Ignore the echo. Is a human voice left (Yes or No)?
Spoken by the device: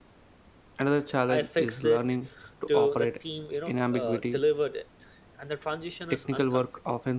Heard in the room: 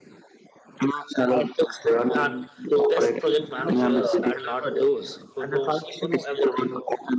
Yes